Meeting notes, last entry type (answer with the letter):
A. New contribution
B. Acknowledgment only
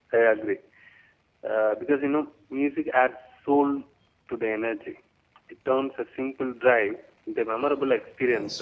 A